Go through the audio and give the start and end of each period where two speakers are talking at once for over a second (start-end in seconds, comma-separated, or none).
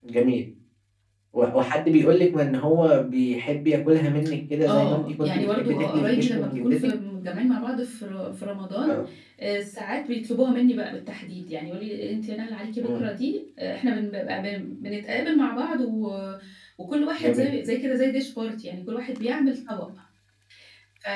4.7-6.9